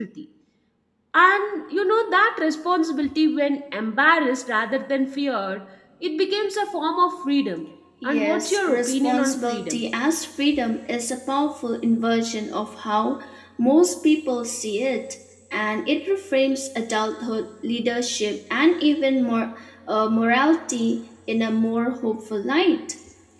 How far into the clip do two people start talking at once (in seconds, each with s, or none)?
8.0 s